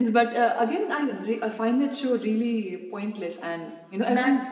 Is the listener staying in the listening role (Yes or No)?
No